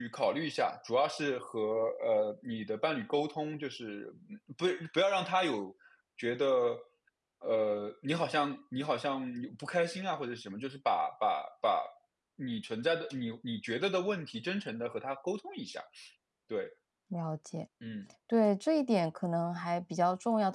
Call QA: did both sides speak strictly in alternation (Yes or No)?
Yes